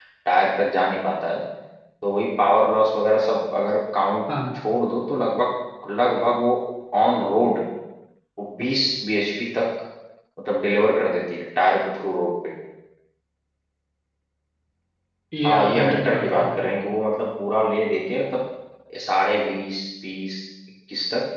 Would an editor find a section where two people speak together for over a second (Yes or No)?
Yes